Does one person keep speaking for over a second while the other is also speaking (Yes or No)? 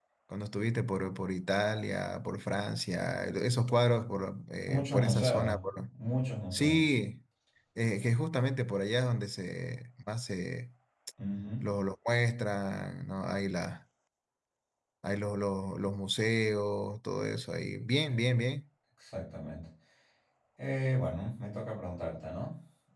Yes